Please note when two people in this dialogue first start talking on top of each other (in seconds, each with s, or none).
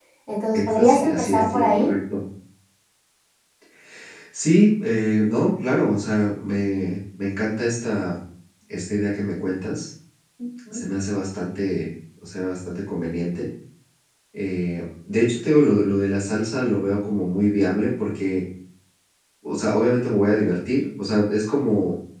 0.5 s